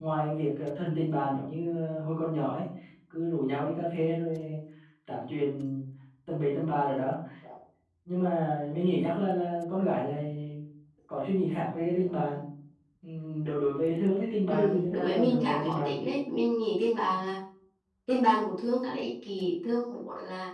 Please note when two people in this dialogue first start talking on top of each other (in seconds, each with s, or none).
14.5 s